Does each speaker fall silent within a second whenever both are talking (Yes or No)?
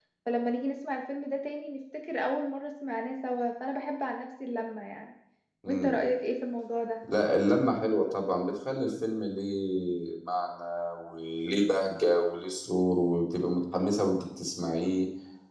Yes